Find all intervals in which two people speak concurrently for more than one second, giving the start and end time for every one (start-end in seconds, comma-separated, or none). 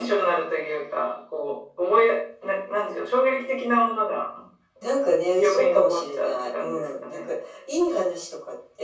5.4-7.3